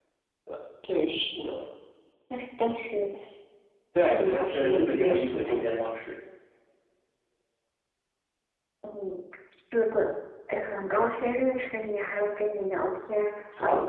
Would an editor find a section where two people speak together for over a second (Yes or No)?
Yes